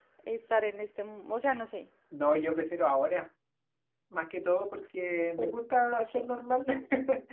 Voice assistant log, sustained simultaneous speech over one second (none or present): none